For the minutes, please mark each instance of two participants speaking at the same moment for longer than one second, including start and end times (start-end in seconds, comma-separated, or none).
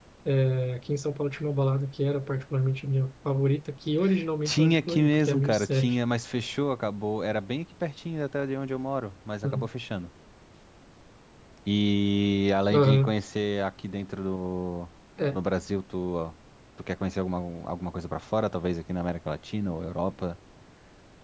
4.5-6.0